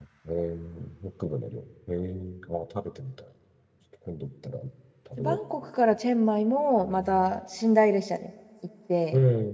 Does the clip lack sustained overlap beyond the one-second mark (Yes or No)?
Yes